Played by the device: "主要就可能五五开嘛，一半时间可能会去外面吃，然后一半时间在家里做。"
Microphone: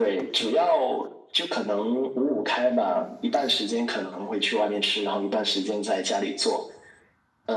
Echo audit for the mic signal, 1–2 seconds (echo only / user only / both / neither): echo only